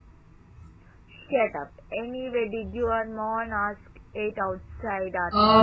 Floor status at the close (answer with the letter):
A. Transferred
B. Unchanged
A